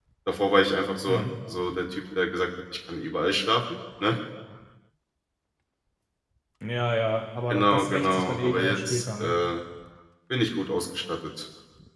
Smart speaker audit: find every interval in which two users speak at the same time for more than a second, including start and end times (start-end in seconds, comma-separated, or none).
7.5-9.4